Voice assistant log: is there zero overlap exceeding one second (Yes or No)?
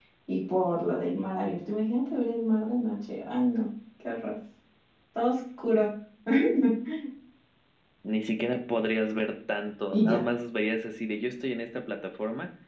Yes